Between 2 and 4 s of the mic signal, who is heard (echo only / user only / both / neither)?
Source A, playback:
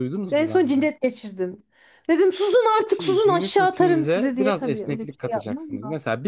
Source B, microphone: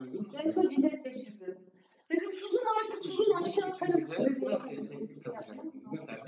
echo only